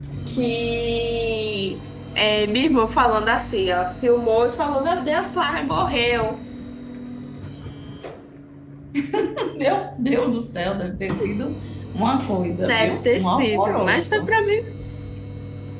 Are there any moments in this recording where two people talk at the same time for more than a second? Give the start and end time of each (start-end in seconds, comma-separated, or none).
12.6-14.4